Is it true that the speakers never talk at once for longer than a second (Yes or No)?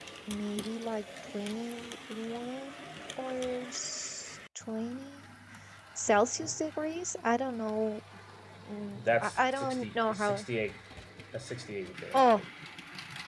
No